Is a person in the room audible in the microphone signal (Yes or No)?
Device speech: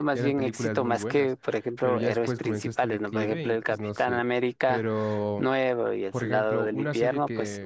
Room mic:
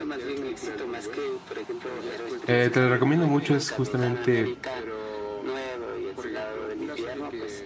Yes